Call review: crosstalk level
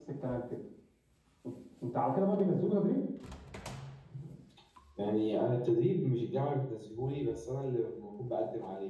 none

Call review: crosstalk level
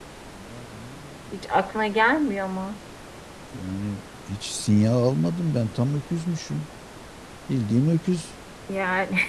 none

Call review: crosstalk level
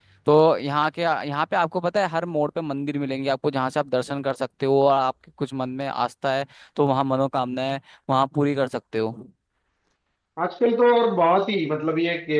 none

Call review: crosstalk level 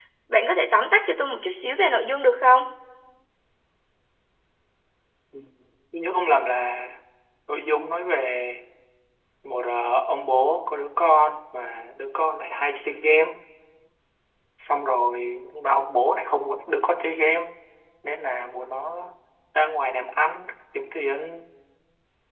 none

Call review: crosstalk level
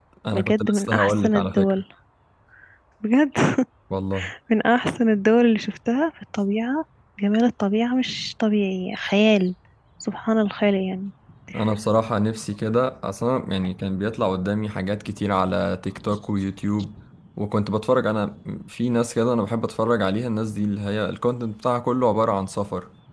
present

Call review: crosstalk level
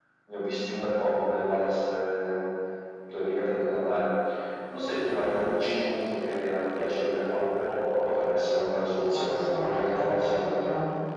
present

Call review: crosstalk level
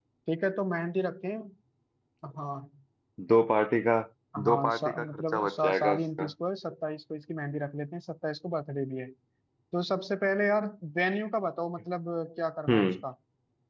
present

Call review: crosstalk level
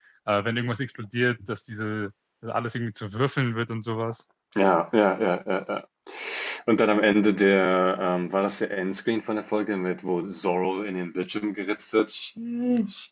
none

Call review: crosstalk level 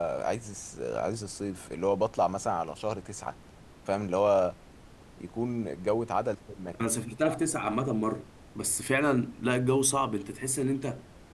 none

